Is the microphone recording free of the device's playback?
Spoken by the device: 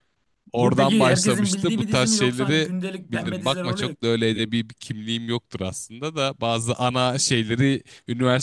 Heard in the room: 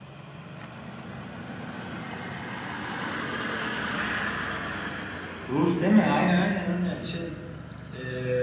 Yes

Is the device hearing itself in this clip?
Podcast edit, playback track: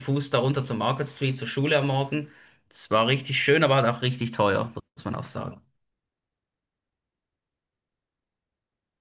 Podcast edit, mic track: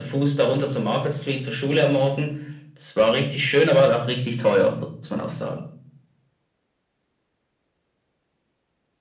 Yes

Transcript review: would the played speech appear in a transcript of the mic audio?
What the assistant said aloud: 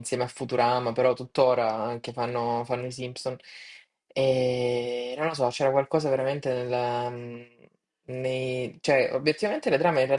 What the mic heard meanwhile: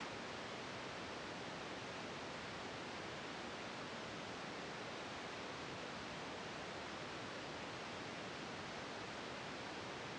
No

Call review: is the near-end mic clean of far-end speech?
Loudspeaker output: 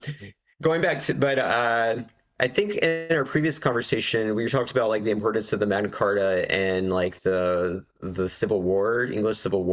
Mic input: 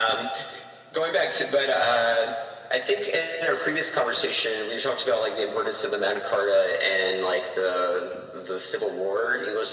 No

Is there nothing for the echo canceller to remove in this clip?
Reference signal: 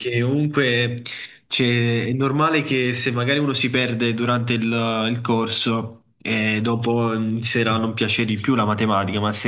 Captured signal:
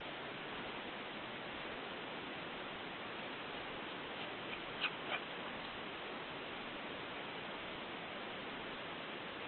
Yes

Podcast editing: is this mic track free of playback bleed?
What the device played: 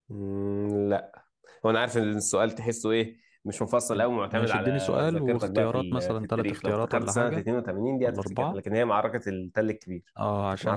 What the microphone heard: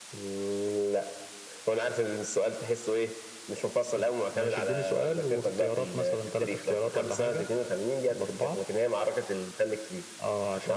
No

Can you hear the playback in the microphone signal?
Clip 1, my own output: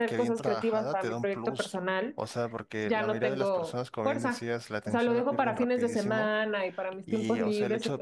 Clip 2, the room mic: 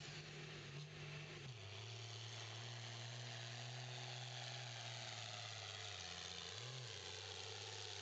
No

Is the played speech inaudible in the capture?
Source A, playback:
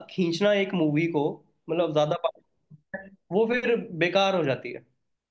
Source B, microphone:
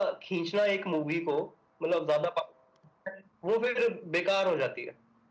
No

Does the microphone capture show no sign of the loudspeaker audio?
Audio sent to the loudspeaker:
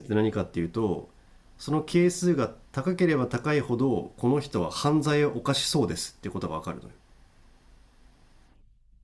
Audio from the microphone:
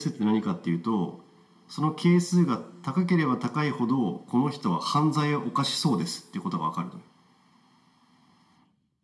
No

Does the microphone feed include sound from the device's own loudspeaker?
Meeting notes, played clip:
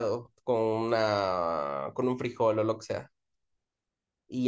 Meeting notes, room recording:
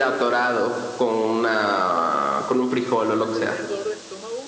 Yes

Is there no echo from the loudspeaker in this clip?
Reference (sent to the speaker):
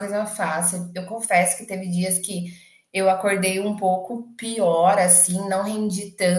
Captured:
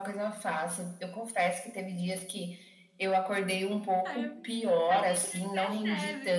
No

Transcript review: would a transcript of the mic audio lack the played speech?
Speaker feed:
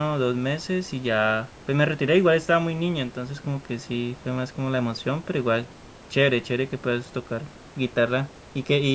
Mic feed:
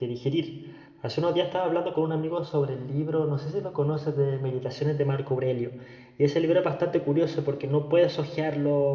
Yes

